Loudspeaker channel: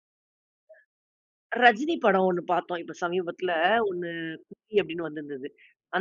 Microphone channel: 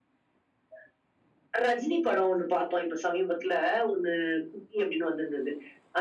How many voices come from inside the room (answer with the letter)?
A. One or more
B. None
B